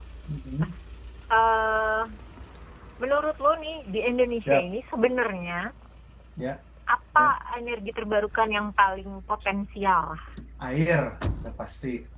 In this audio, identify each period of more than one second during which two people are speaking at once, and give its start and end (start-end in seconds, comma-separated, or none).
none